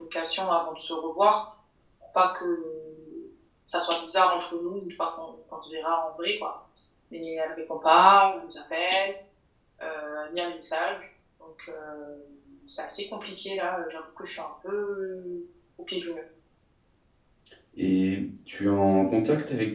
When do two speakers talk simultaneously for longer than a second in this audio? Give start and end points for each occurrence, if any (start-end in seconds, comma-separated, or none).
none